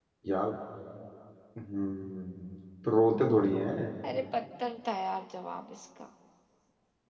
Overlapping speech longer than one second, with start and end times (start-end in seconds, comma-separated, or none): none